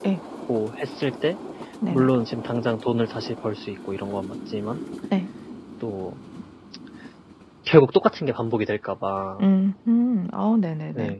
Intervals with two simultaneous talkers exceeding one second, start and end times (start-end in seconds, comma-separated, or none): none